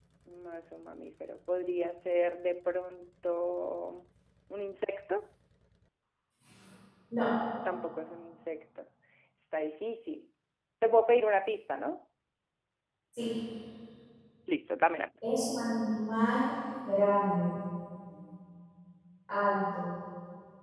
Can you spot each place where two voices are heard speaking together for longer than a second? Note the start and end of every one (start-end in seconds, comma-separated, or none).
none